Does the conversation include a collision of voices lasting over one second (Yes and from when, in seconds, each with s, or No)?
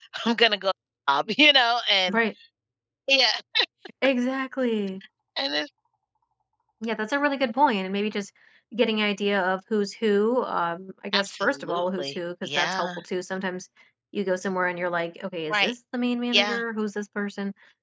Yes, from 11.1 s